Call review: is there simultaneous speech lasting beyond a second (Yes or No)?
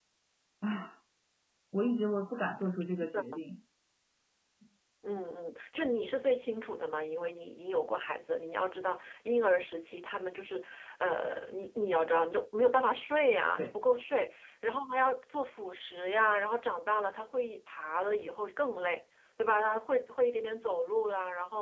No